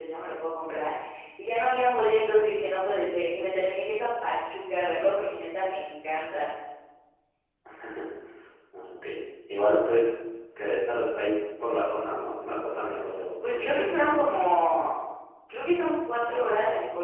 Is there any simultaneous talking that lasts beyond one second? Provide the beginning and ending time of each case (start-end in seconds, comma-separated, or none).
none